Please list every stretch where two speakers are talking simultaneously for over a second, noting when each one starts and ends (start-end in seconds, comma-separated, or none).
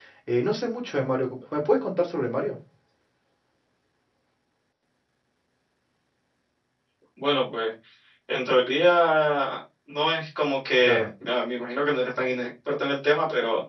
none